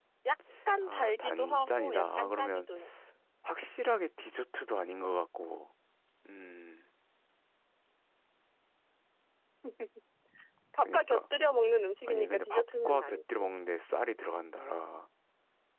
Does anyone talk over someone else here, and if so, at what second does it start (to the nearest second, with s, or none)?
1 s